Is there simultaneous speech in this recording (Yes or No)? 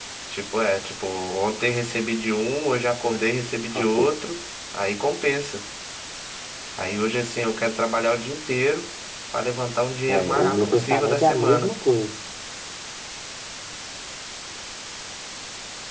Yes